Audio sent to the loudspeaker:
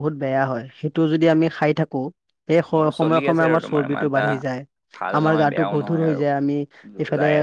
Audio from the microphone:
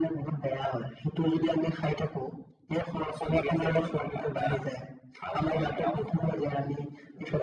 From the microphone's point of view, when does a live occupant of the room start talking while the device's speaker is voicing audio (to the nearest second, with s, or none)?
none